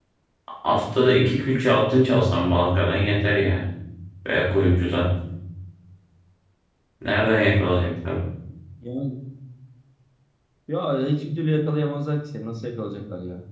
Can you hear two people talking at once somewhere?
No

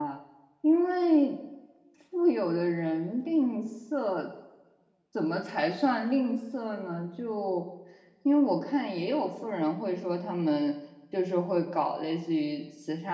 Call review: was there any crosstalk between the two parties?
No

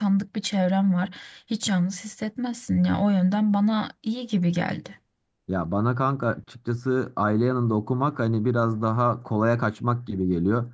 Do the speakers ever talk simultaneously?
No

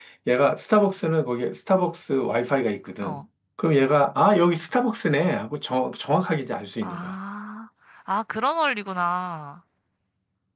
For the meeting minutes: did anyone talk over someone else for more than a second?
No

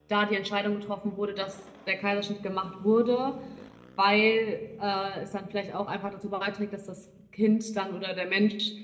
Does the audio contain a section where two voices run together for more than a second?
No

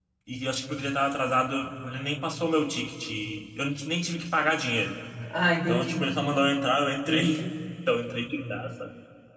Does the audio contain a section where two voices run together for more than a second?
No

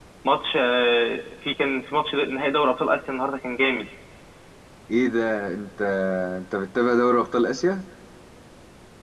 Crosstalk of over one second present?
No

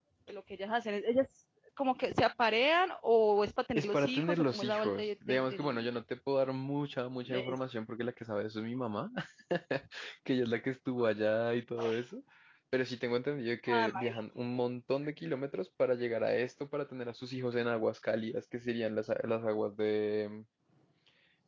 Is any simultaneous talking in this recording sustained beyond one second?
Yes, from 3.8 s

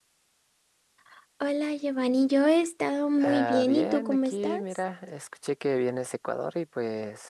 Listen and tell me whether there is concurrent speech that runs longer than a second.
Yes, from 3.2 s

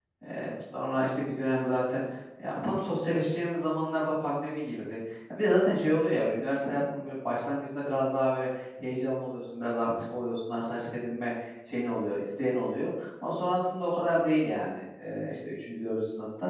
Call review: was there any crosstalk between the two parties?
No

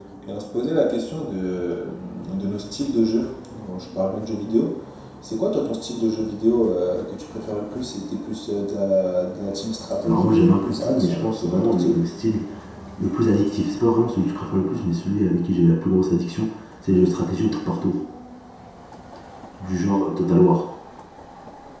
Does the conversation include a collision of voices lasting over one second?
Yes, from 9.9 s

